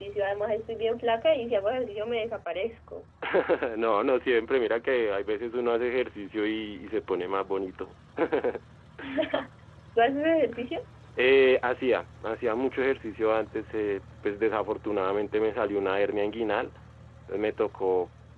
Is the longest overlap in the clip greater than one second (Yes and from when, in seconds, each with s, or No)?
No